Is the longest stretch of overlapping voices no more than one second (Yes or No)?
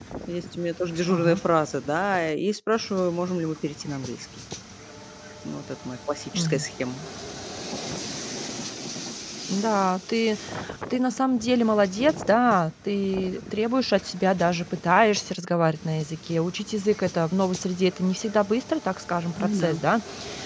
Yes